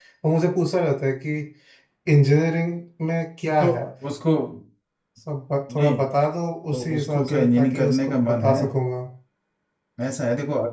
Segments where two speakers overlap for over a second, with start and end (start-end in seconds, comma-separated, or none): 6.7-8.6